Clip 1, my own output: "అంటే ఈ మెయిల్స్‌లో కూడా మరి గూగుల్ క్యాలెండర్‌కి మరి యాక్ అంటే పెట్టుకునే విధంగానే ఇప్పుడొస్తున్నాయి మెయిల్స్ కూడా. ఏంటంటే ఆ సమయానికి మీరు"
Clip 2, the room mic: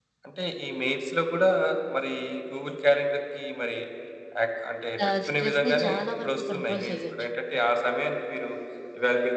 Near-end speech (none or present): present